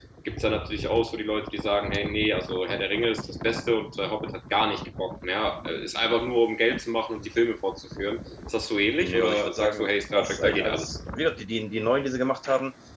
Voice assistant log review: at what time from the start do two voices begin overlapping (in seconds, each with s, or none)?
9.0 s